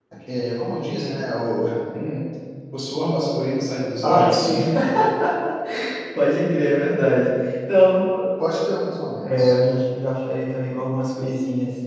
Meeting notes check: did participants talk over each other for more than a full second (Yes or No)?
No